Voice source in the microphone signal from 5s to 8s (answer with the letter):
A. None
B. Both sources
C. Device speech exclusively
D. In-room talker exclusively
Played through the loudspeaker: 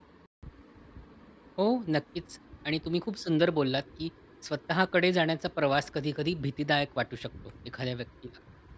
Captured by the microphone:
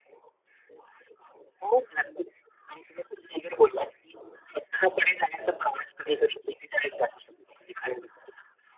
C